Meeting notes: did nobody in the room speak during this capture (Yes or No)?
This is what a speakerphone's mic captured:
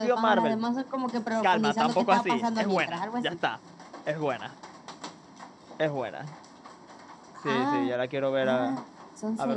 No